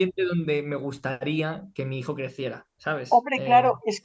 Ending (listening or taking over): taking over